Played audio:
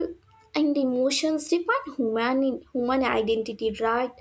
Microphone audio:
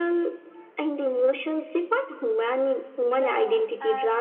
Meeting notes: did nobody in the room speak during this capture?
No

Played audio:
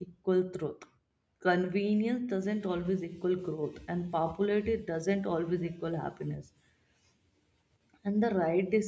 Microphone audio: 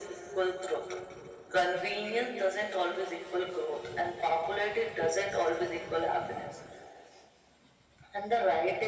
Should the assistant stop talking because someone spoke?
No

